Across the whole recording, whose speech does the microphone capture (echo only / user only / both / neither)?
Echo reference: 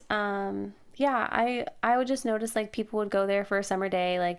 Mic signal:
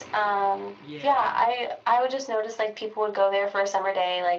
both